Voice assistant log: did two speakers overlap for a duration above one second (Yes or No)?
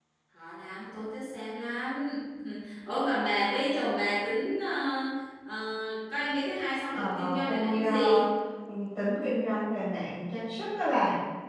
Yes